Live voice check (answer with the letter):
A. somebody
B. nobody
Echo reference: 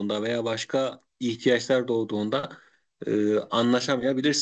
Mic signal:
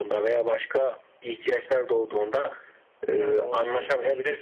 A